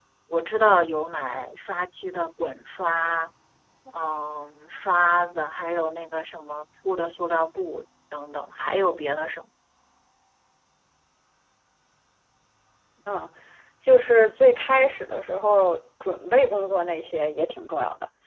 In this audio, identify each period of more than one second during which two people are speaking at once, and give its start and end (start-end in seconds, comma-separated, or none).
none